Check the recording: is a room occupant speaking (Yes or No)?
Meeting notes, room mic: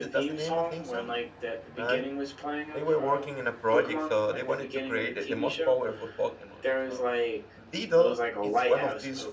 Yes